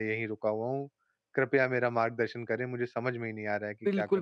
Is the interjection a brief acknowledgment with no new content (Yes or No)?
No